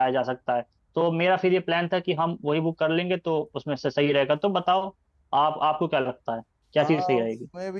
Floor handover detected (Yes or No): Yes